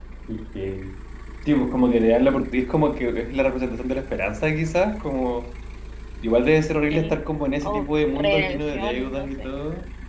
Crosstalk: present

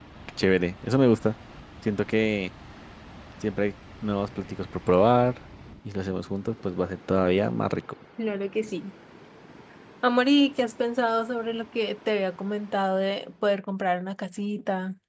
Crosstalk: none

